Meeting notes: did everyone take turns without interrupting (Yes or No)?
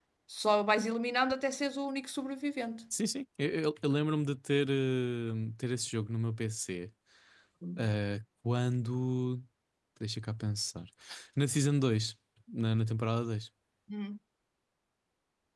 Yes